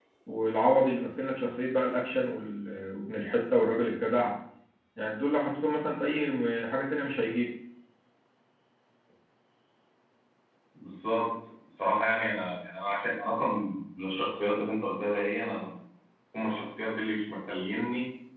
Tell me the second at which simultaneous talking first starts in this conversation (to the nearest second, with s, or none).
none